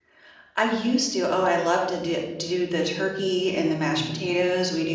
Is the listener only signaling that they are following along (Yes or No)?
Yes